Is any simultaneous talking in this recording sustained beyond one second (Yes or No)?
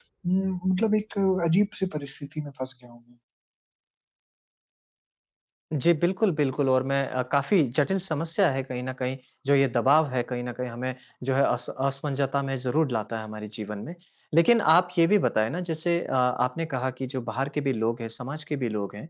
No